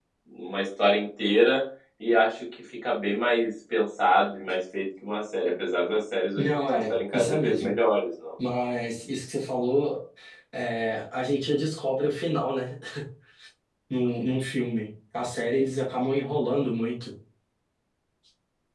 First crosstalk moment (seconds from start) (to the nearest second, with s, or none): 6 s